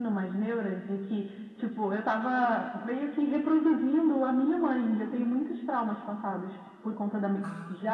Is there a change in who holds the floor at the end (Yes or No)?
No